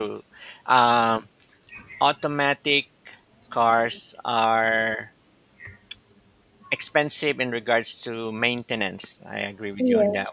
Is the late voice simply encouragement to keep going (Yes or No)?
Yes